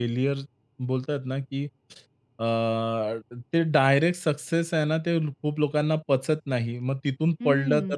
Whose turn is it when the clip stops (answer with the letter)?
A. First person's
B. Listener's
A